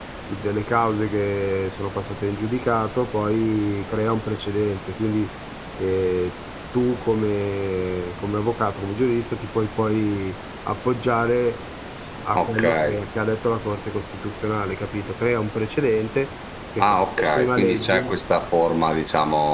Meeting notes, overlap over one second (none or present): present